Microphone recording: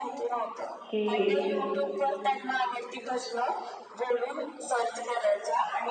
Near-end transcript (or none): कि